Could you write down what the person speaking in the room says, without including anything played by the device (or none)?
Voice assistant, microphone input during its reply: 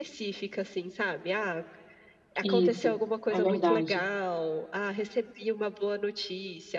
Isso, é verdade.